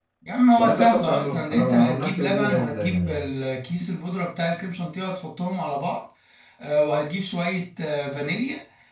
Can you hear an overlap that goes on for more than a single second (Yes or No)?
Yes